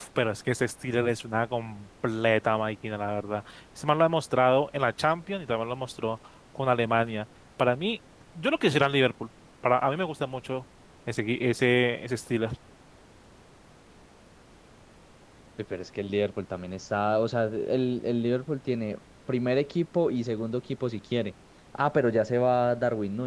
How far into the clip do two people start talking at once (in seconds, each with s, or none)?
none